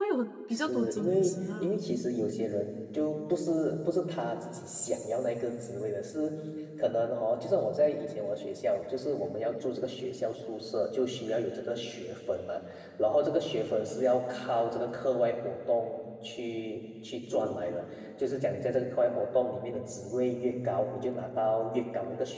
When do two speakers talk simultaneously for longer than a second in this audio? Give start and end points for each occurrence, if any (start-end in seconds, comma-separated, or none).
0.5-1.7